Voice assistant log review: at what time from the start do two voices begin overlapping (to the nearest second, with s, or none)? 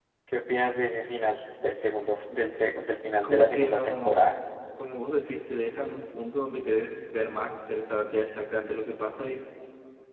3 s